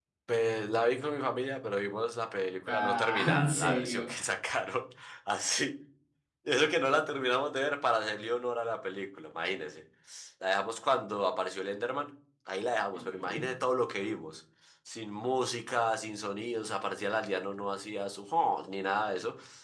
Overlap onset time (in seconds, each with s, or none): 2.7 s